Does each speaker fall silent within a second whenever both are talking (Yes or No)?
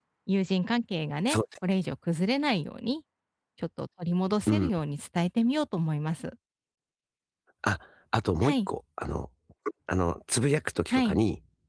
Yes